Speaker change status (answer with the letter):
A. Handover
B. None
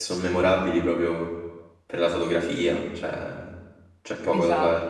A